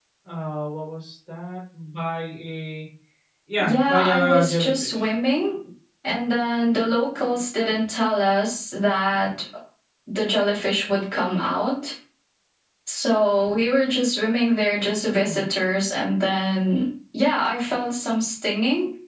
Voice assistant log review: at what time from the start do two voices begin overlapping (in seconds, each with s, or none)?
3.6 s